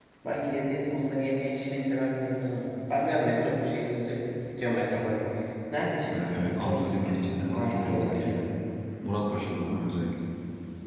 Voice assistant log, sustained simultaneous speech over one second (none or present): present